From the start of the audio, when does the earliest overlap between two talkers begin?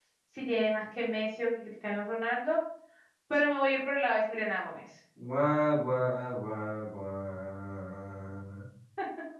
none

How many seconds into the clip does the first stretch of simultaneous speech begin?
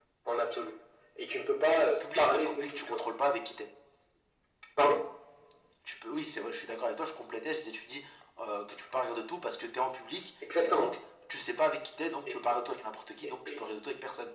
1.6 s

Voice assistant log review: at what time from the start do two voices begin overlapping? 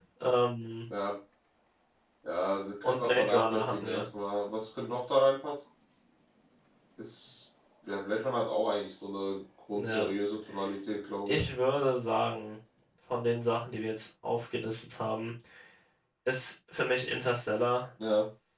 2.8 s

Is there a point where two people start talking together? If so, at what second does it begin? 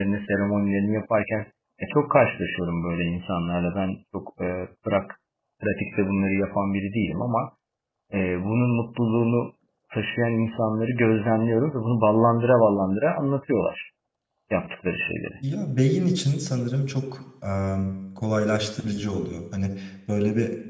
none

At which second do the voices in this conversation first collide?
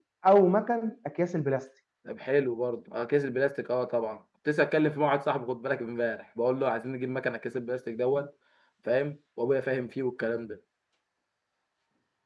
none

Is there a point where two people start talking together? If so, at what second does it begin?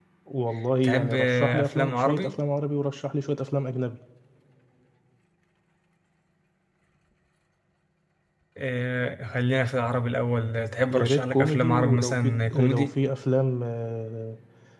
0.8 s

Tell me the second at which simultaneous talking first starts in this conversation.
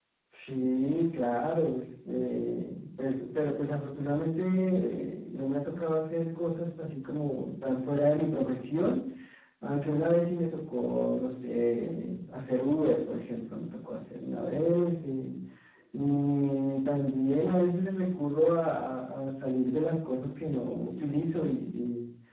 none

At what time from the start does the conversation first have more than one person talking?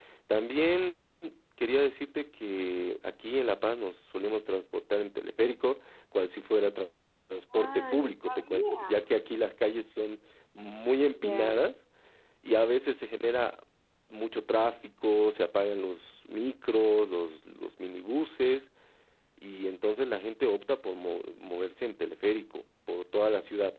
7.5 s

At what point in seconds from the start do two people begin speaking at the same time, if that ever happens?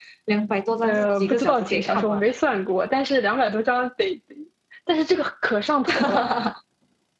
0.8 s

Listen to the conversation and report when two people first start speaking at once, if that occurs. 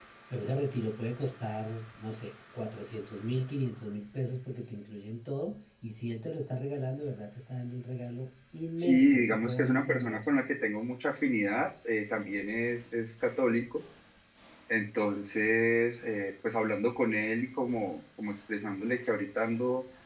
8.8 s

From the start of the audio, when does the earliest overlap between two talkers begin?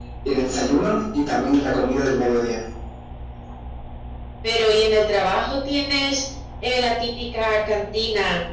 none

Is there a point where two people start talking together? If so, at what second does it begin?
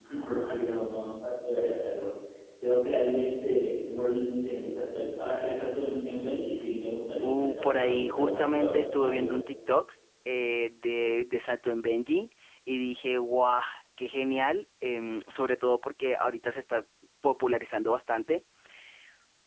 7.2 s

